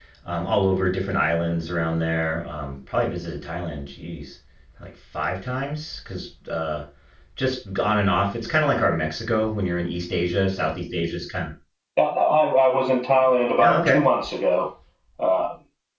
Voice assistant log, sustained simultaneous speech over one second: none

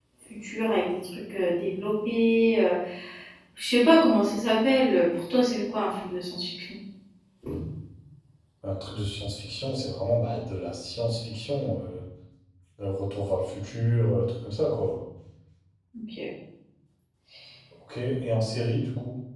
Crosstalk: none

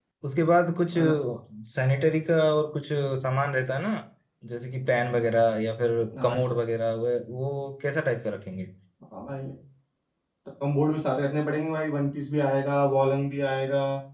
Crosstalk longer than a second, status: none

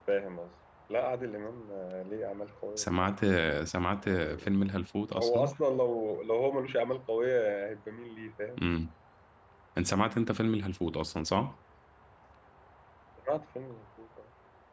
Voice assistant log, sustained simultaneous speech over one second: none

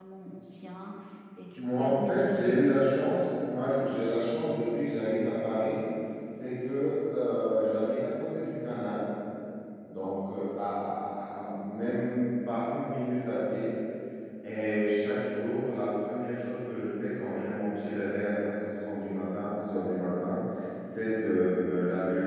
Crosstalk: present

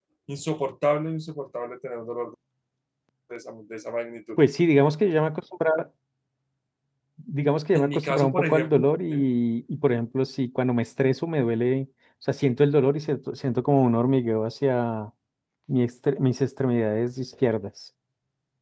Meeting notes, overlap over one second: present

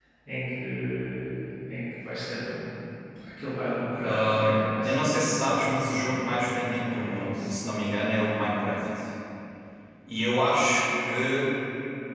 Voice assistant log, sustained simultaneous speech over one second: present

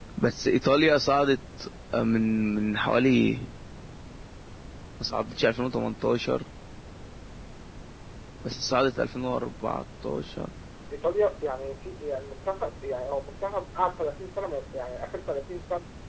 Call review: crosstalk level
none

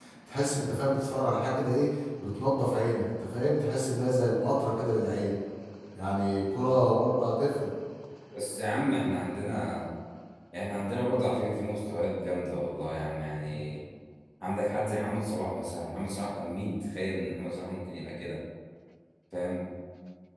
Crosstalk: none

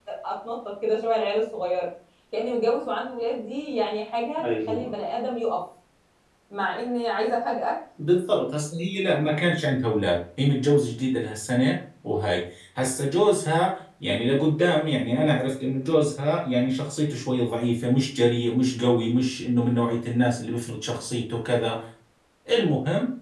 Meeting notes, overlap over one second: none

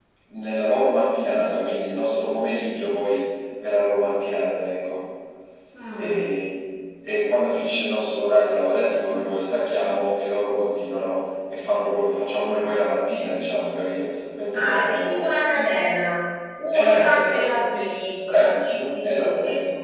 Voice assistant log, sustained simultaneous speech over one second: present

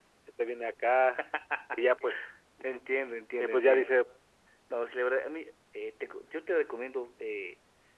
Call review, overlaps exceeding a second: none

